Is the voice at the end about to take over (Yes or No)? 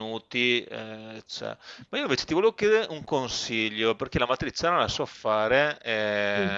No